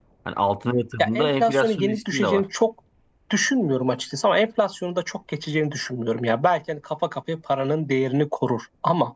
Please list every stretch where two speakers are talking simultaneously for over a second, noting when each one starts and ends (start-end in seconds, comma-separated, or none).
1.0-2.4